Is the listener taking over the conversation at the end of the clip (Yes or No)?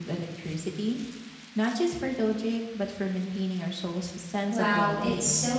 Yes